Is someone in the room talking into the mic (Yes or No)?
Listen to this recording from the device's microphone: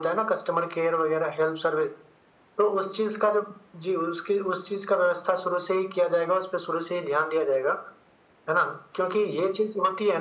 No